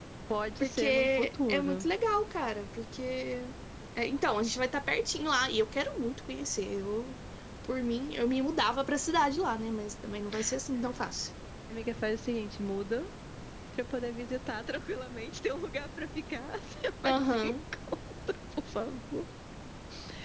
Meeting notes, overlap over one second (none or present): present